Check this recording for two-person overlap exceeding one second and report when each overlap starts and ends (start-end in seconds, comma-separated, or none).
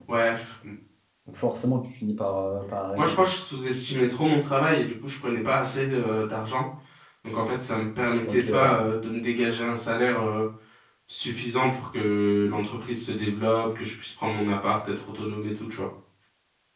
none